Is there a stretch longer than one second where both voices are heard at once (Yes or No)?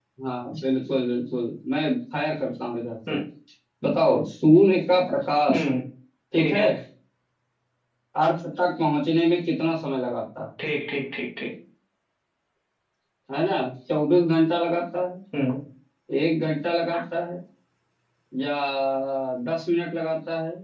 No